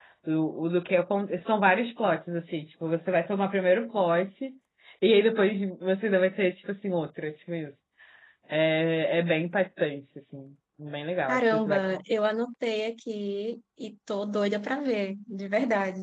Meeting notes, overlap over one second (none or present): none